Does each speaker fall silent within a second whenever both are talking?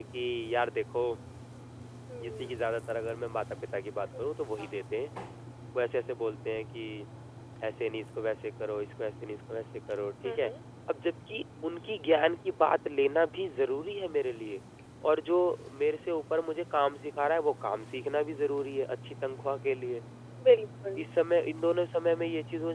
Yes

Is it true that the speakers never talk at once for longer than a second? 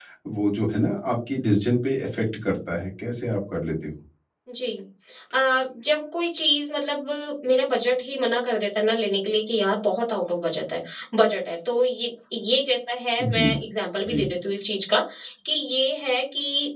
Yes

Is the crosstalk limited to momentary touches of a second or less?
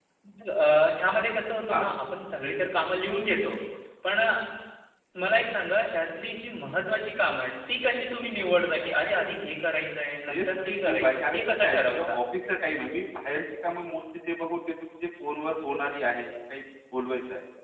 No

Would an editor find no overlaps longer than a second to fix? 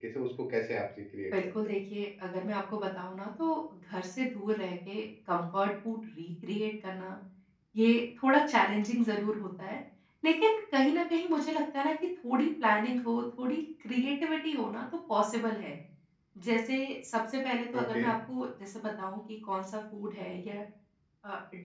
Yes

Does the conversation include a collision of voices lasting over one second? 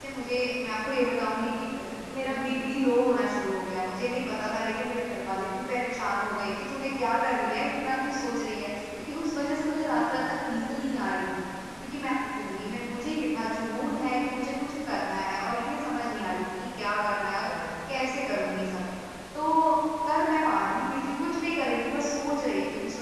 No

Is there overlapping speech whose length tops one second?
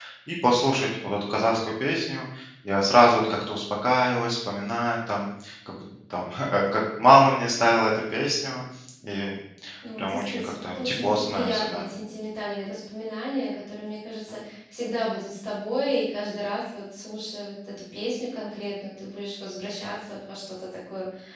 Yes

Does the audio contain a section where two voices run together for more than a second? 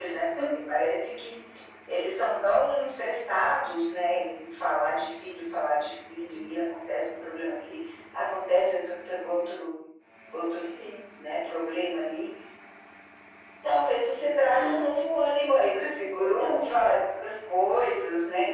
No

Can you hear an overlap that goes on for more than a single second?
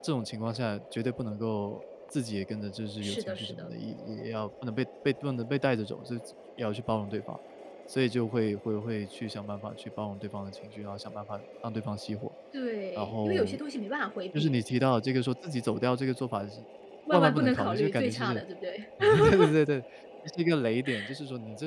Yes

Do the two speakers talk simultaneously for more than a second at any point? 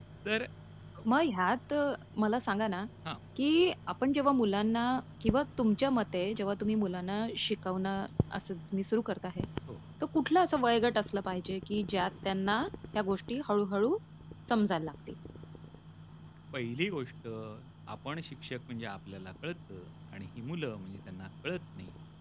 No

